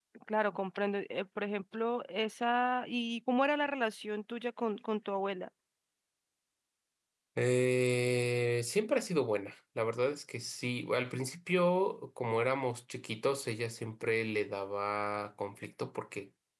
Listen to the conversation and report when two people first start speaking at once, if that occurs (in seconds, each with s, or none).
none